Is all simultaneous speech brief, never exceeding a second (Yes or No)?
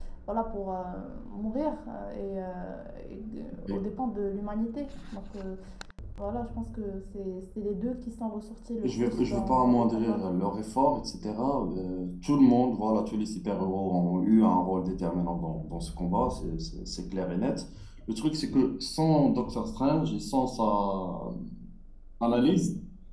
No